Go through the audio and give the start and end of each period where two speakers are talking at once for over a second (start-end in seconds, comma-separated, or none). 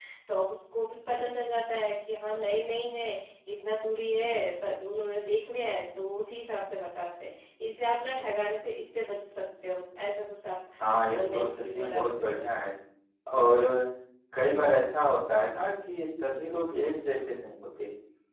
11.2-12.4